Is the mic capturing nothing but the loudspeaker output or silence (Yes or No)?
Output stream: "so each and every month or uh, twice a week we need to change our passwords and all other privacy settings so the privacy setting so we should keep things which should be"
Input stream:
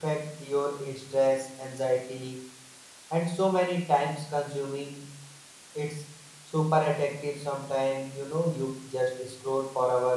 No